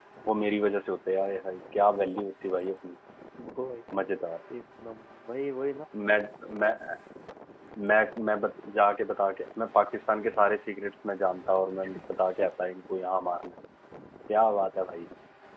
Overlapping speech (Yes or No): No